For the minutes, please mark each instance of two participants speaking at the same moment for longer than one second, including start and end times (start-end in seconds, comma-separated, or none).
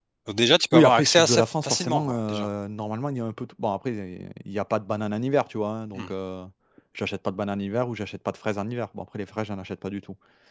0.7-2.5